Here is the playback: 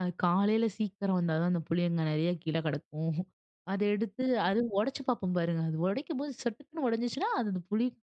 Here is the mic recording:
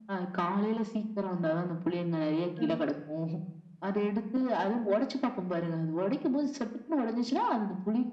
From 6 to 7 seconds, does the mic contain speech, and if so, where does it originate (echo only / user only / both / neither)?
echo only